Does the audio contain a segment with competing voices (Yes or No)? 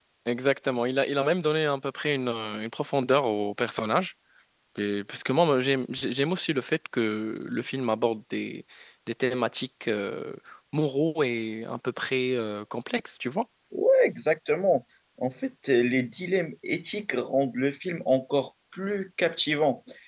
No